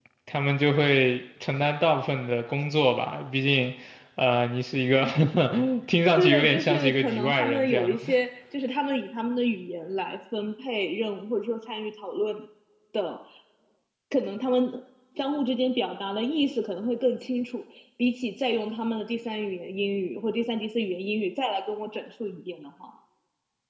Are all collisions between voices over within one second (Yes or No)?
No